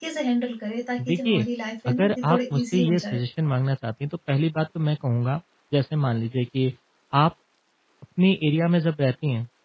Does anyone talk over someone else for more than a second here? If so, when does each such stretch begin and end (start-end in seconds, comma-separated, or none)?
1.9-3.2